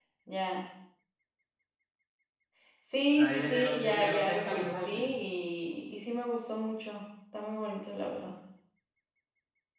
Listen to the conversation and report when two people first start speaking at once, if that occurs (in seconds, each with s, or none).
3.1 s